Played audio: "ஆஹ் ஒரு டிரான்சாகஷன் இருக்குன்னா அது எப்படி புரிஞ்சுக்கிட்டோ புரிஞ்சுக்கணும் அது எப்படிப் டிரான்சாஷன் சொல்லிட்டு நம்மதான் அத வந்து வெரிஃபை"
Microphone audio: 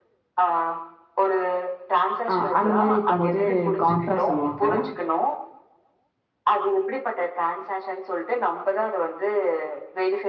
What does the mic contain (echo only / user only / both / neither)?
both